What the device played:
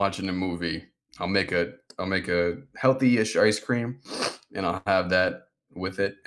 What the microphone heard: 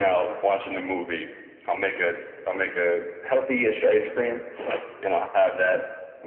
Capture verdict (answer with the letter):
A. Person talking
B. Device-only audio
B